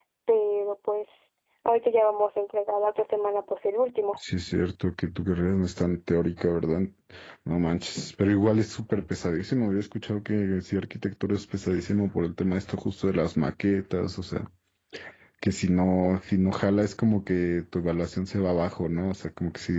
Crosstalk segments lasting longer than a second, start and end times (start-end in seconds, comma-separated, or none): none